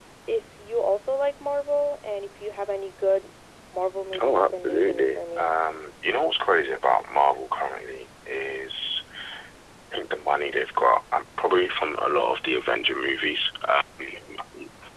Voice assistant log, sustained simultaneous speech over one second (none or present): present